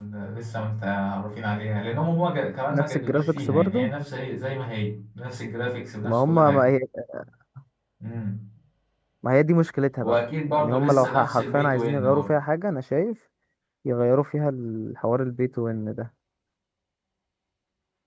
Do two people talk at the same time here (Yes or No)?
Yes